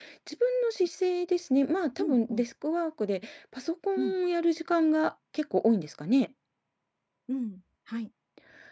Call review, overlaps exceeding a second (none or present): none